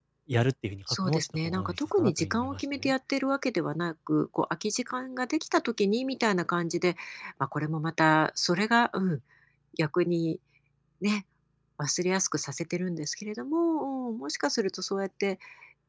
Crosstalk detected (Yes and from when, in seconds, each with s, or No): Yes, from 1.0 s